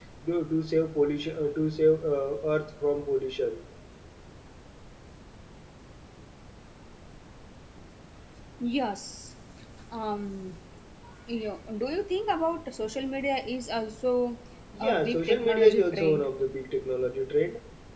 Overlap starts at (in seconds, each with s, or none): 14.8 s